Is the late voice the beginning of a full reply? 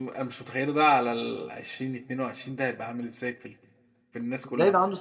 Yes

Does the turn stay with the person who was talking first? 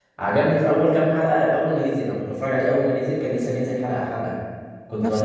Yes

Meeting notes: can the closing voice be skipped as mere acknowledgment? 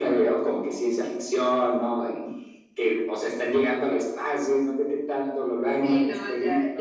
No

